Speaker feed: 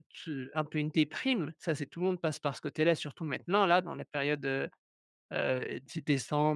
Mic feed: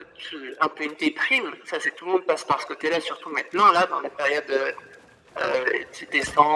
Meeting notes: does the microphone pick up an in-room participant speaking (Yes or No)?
No